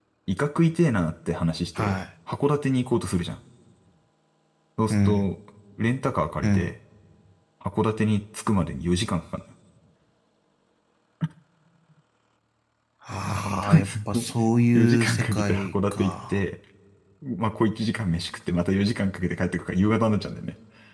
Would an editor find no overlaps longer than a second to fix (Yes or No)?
No